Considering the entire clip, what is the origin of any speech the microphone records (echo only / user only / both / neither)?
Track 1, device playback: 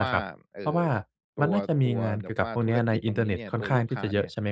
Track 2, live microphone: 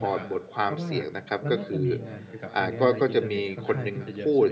both